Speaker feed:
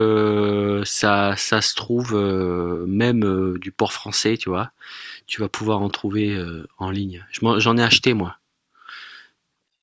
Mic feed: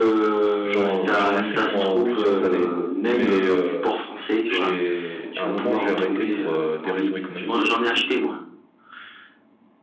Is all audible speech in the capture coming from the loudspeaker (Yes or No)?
No